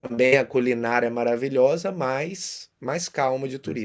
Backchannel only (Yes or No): No